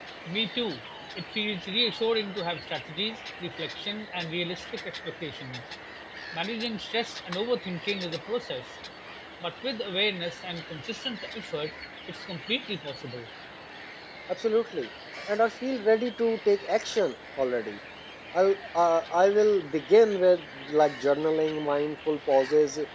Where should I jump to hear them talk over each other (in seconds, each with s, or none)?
none